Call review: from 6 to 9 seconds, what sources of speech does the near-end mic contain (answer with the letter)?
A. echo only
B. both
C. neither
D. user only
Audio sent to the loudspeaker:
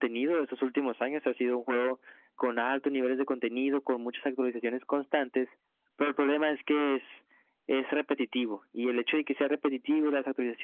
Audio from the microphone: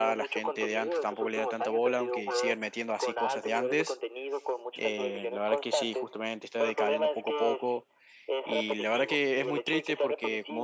B